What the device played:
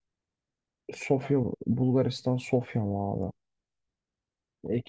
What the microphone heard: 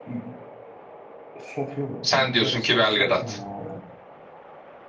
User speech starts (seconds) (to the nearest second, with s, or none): 2 s